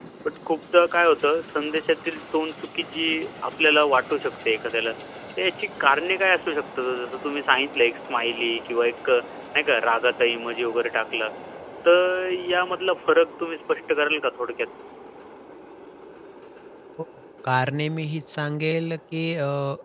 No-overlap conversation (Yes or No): Yes